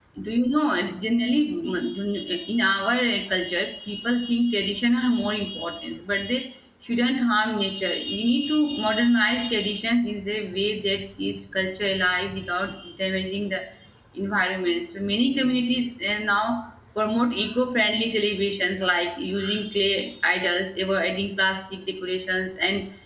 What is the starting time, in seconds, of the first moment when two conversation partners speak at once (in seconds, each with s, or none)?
none